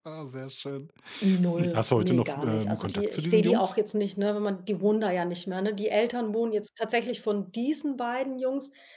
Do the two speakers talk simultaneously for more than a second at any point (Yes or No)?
Yes